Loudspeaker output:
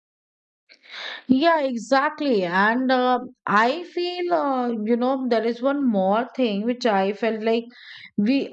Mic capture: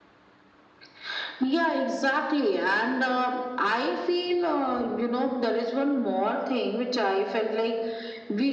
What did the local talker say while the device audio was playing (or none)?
none